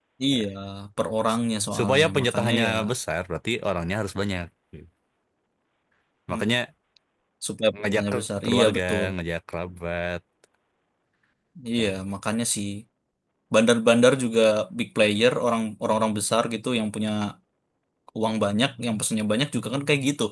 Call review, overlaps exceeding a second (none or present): present